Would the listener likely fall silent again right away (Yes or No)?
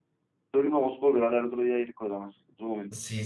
No